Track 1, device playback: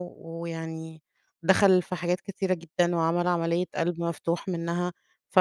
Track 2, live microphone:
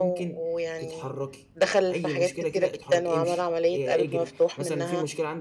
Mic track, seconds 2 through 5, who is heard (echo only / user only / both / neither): both